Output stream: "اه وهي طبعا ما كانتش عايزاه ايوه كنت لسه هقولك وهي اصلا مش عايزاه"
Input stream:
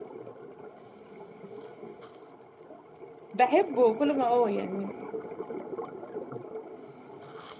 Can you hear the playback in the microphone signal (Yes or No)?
No